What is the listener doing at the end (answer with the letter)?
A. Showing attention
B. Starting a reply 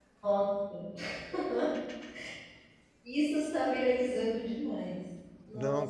B